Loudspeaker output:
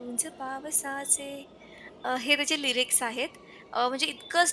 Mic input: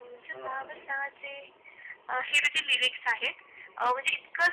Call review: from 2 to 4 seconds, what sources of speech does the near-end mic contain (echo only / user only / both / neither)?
echo only